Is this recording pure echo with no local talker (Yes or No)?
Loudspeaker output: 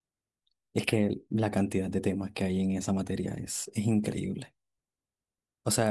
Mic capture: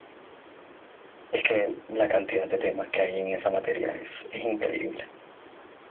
Yes